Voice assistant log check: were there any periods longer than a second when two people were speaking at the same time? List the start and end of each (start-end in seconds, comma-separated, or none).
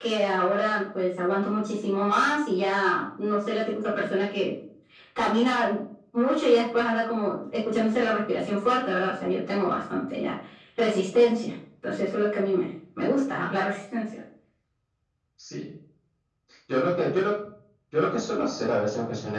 none